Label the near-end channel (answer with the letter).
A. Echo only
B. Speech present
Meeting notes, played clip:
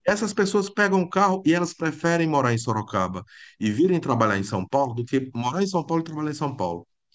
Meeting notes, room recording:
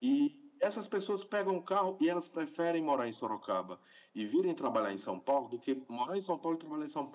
A